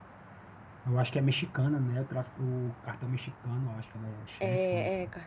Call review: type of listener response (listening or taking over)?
taking over